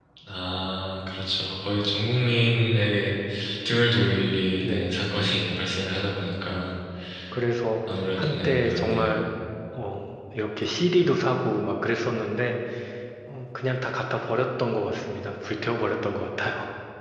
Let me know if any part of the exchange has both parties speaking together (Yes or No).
Yes